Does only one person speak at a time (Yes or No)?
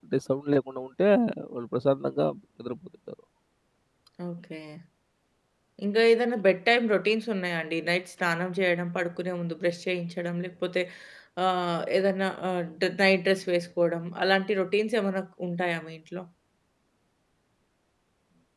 Yes